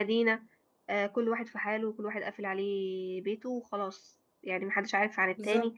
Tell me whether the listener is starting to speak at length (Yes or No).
No